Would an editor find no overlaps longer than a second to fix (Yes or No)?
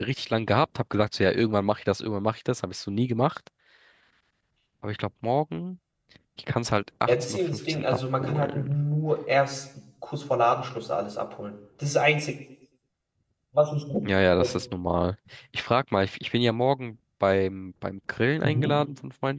No